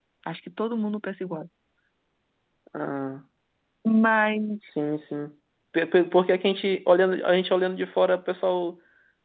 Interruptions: none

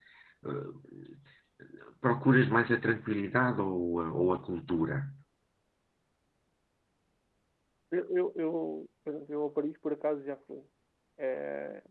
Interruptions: none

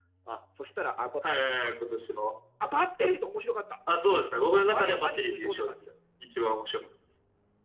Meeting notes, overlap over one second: present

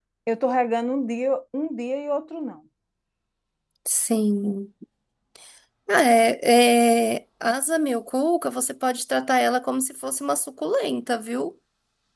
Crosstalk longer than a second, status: none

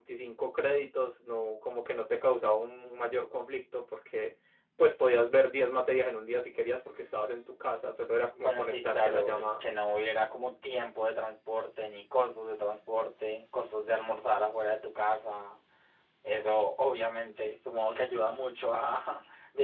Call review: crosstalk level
present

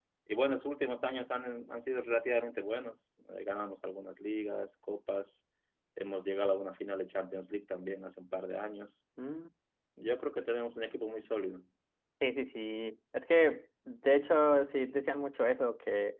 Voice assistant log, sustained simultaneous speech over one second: none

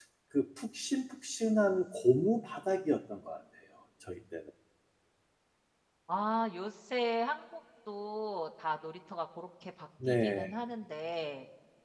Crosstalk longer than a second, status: none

